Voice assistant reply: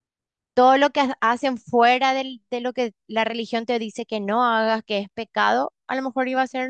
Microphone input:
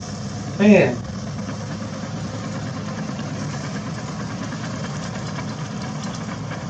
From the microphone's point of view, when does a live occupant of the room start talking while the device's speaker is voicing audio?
0.6 s

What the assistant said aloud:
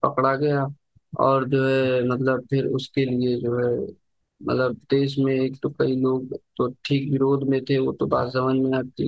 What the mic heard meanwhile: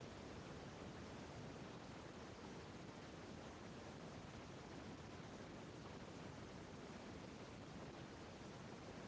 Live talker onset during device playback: none

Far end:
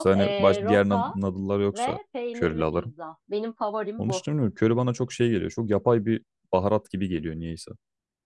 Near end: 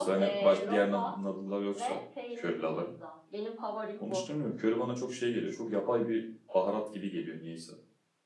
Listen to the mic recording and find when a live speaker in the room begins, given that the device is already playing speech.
none

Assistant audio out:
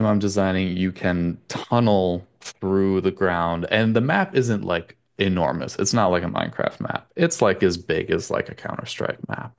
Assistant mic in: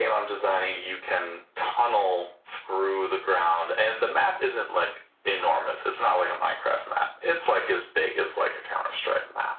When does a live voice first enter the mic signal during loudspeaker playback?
none

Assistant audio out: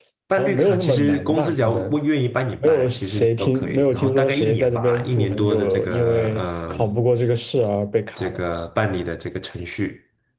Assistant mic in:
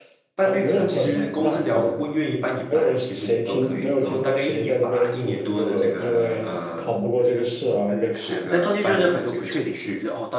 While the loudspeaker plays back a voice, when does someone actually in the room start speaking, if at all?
7.2 s

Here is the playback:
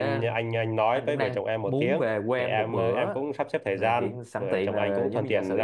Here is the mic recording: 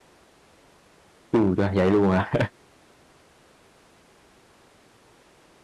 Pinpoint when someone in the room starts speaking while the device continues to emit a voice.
1.3 s

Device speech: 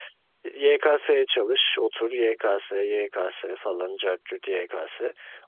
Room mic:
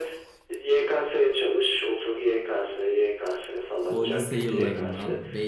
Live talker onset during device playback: 3.9 s

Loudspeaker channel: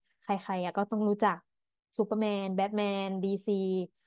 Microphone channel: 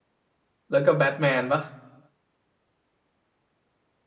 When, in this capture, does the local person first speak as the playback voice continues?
0.7 s

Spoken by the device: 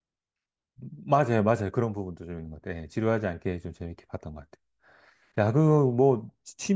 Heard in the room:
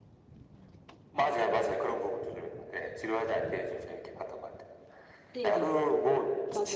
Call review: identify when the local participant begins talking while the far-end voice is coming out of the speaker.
5.3 s

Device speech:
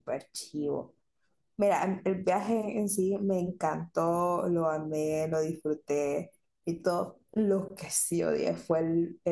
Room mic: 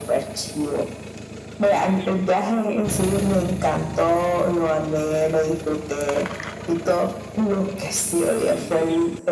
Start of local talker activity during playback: none

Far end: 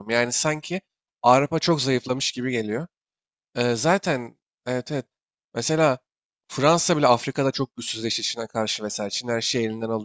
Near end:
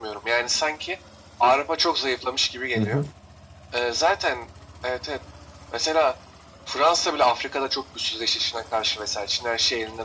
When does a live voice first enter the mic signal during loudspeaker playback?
2.8 s

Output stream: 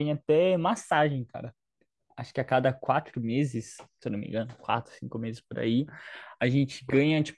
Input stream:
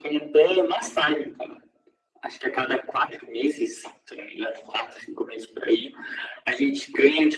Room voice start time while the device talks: none

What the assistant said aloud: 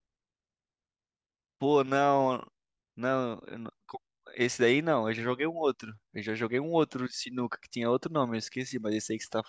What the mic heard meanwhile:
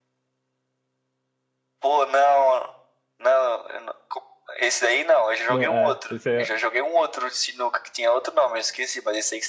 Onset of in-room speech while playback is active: 5.5 s

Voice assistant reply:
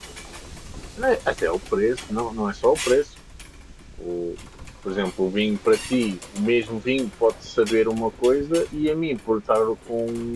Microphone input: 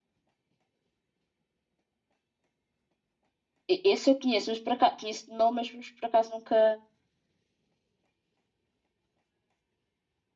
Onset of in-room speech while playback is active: 3.7 s

